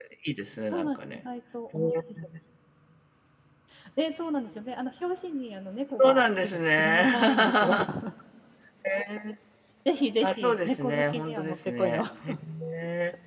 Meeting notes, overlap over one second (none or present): present